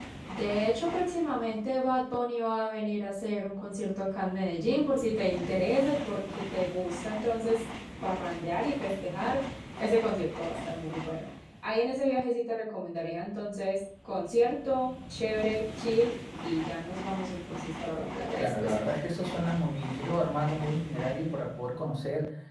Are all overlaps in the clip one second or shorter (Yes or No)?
Yes